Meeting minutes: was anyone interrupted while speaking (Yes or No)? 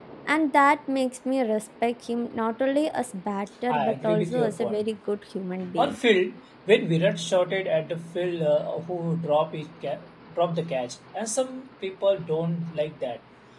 Yes